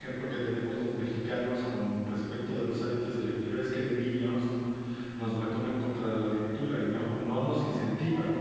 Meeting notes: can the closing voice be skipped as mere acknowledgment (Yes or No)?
Yes